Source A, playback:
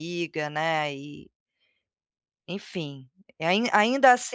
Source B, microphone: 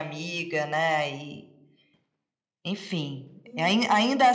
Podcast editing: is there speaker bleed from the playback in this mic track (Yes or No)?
Yes